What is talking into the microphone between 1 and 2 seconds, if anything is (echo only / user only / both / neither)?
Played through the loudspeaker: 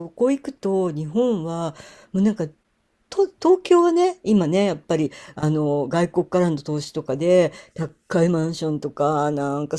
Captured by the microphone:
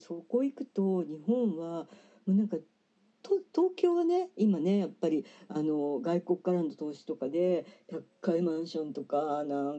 echo only